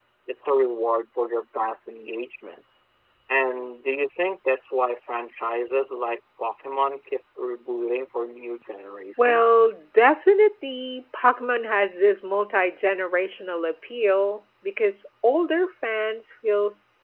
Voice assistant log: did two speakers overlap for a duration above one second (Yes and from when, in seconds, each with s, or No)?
No